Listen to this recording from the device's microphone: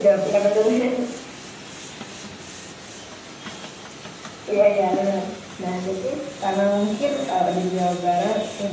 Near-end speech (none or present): none